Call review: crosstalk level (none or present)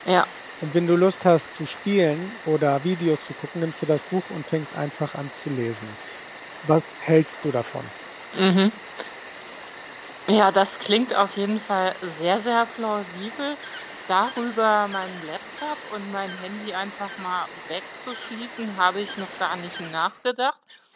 none